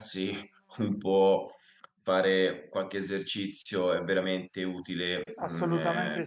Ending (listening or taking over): taking over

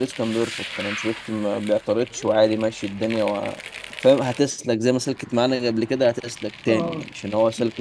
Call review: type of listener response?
listening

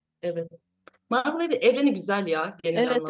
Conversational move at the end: taking over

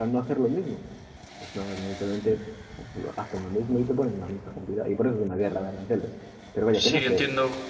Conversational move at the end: taking over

